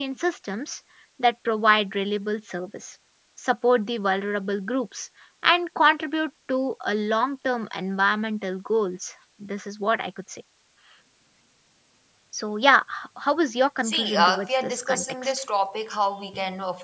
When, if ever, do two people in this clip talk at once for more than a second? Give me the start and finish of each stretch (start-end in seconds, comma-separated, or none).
13.8-15.4